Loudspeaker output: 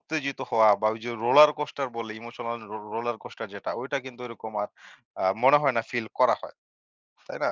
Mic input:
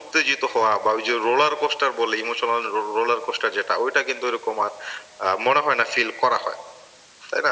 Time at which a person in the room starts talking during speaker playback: none

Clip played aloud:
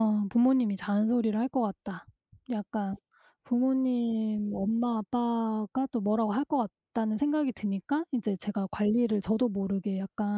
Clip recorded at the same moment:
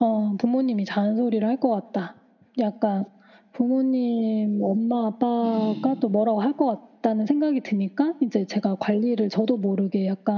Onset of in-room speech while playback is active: 5.4 s

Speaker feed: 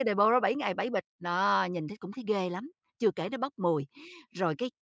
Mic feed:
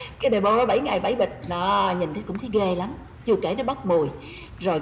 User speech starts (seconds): none

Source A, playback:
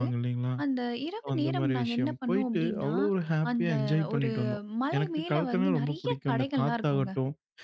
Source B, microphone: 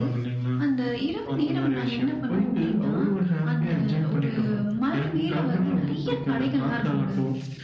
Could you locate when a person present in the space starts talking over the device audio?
none

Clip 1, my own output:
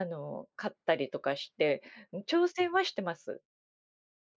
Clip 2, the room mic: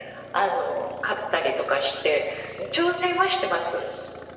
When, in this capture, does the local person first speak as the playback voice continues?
none

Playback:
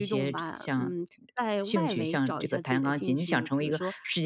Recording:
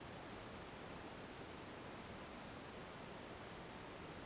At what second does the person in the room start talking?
none

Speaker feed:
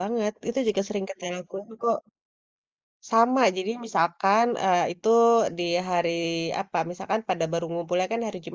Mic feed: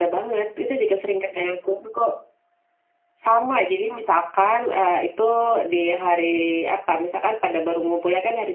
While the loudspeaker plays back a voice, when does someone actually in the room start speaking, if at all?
none

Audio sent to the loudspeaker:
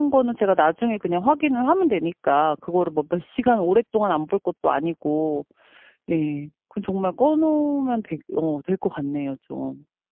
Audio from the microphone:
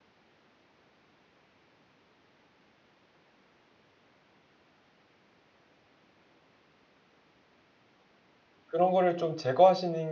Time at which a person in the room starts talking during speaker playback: 8.7 s

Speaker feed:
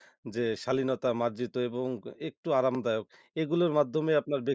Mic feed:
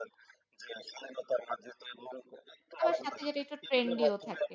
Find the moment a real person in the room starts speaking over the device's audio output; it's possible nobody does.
2.8 s

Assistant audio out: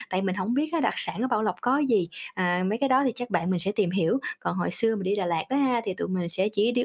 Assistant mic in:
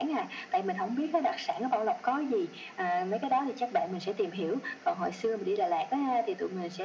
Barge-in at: none

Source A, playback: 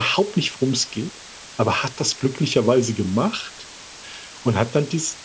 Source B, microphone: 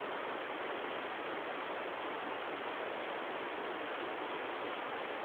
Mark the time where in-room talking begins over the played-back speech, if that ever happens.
none

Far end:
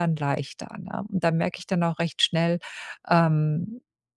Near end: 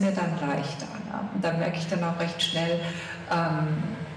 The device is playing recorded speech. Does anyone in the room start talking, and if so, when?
none

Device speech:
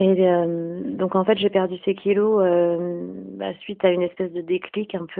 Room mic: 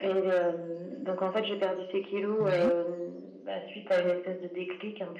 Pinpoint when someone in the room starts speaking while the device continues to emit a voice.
2.4 s

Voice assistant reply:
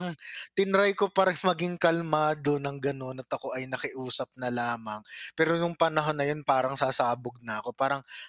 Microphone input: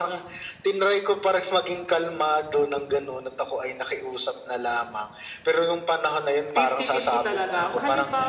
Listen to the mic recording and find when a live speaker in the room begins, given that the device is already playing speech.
6.5 s

